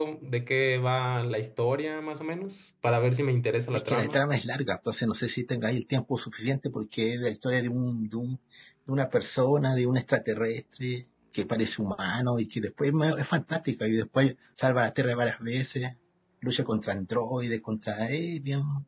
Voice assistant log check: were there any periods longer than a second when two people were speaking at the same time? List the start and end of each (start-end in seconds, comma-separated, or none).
none